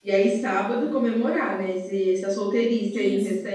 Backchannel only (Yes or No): No